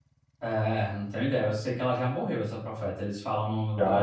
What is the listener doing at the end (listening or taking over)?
taking over